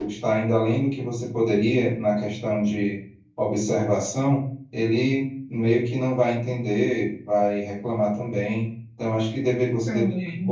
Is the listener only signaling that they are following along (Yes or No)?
Yes